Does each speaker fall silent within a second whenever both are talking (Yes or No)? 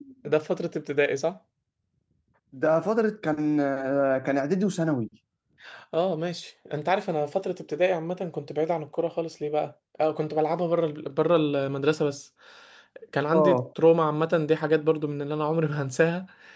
Yes